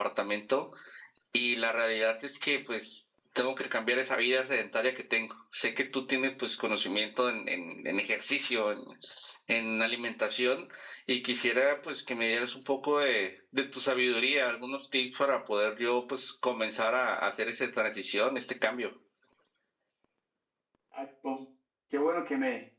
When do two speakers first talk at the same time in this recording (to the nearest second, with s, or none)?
none